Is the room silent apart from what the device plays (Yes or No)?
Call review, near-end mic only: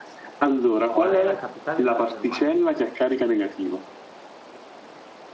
No